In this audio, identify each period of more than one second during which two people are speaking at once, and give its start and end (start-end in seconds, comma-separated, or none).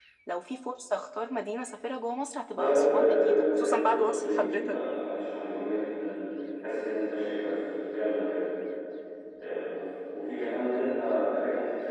2.5-4.8